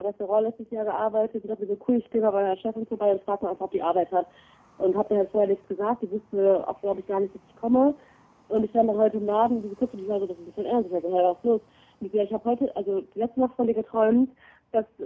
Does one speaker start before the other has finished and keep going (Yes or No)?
No